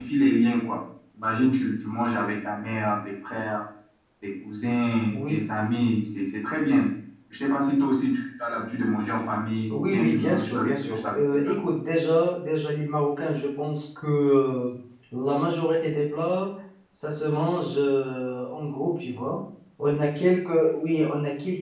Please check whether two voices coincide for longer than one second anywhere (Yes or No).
Yes